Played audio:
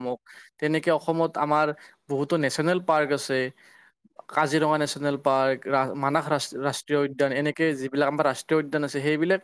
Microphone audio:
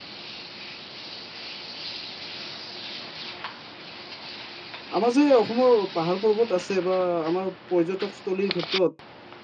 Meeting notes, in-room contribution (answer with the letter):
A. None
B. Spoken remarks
B